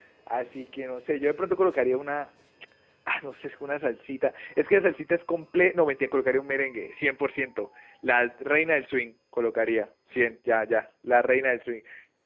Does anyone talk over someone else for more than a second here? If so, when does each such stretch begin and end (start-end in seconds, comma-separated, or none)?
none